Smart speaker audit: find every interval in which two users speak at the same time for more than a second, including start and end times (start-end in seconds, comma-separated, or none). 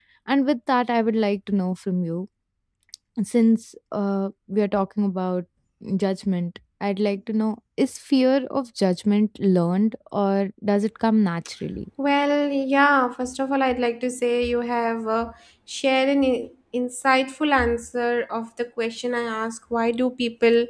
none